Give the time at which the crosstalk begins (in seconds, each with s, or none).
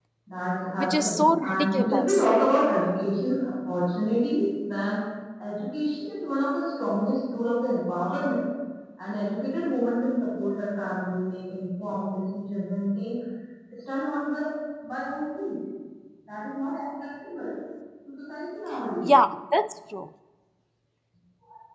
0.8 s